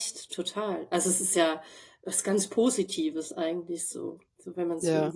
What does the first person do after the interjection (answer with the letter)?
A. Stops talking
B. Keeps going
A